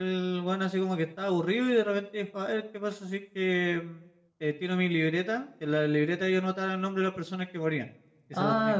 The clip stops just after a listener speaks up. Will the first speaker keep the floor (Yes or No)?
No